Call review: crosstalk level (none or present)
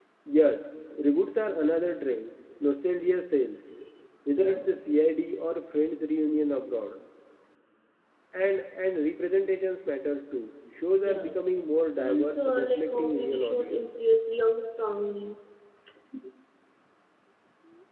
present